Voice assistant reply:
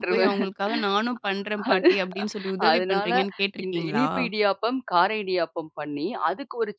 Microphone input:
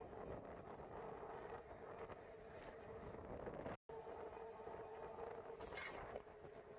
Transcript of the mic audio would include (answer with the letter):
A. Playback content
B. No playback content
B